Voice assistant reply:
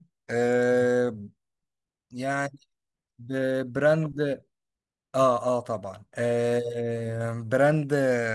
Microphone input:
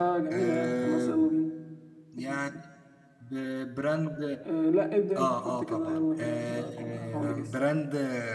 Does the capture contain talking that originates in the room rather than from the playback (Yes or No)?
Yes